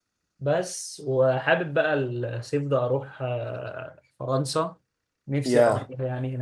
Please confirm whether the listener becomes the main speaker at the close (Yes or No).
No